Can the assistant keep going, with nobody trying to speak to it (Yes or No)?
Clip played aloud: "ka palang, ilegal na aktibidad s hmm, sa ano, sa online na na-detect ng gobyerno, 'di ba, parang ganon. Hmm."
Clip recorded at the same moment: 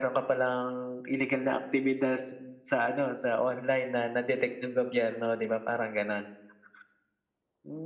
Yes